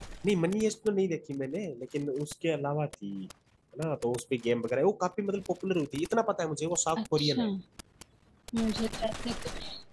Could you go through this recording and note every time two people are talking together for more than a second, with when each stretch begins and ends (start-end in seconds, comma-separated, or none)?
none